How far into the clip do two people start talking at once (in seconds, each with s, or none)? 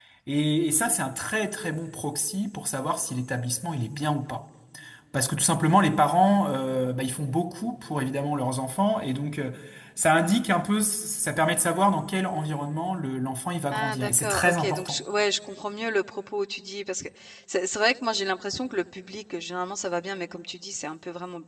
13.7 s